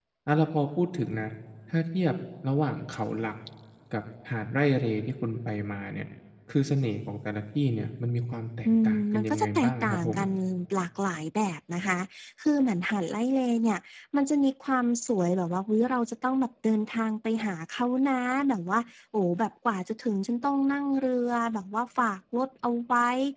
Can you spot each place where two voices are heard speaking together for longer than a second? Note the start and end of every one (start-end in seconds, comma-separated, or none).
8.8-10.2